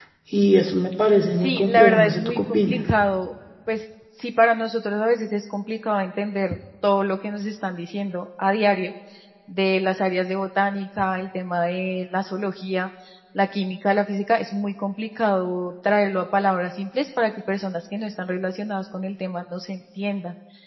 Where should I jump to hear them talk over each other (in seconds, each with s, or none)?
1.3 s